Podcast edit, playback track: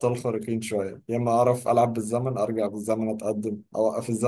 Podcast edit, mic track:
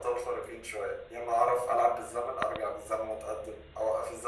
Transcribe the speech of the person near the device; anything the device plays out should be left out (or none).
none